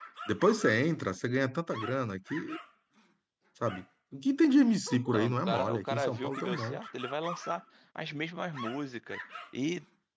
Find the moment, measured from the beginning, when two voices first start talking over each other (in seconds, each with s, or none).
5.1 s